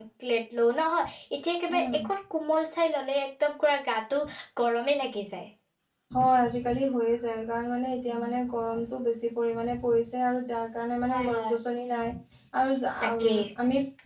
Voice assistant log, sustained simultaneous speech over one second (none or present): none